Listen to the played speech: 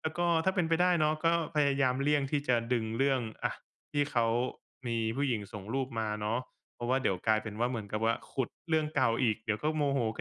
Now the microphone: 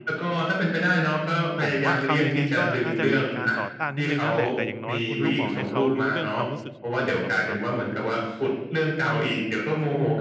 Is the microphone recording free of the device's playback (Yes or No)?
No